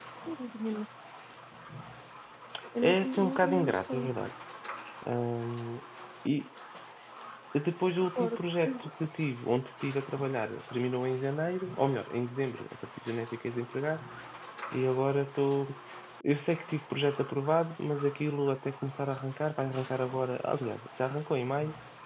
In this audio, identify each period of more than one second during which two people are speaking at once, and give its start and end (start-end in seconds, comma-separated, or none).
2.8-4.1